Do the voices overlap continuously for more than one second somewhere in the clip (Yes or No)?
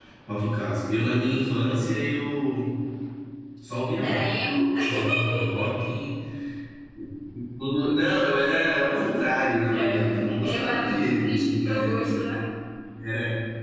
Yes